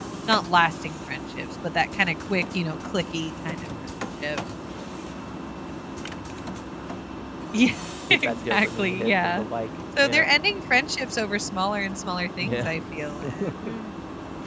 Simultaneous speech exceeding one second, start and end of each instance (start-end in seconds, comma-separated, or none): 8.1-9.4